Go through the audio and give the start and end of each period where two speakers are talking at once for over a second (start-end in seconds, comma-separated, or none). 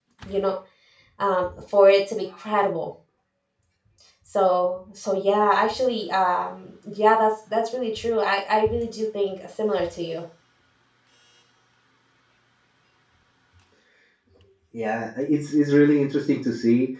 none